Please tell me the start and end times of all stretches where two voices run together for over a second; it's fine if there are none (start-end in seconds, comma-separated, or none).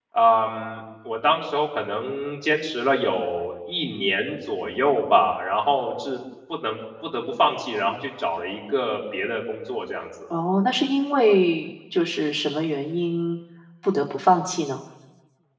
none